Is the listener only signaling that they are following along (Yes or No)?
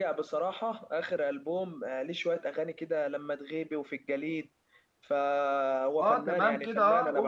No